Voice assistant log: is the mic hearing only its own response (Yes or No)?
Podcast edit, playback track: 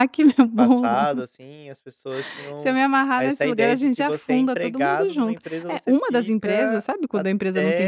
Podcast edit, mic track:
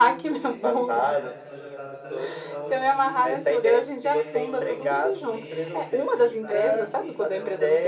No